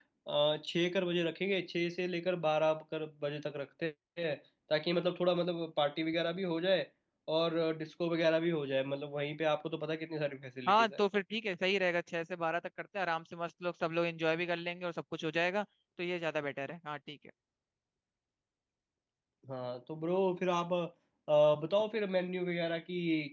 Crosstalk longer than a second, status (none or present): none